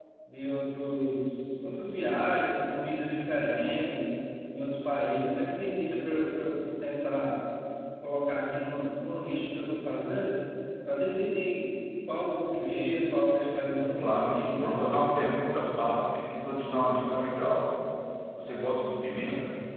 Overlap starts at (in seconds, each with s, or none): 13.6 s